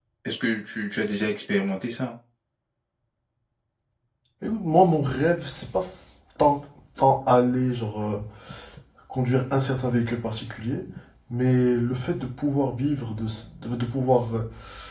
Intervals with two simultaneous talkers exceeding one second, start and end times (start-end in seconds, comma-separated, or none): none